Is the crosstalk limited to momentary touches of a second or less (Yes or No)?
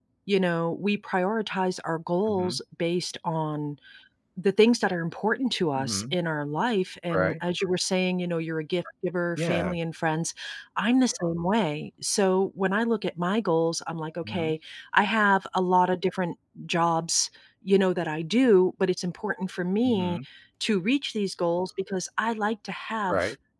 Yes